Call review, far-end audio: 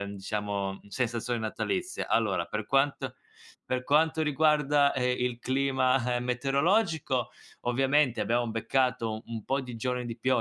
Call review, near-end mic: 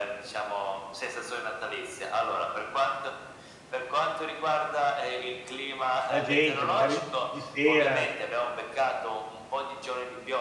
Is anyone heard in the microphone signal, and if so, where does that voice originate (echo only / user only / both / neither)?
both